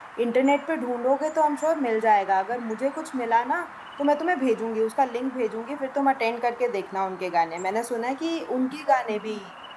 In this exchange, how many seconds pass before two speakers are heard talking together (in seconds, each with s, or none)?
none